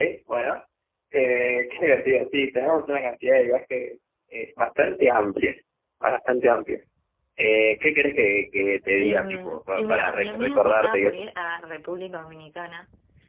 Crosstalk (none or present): present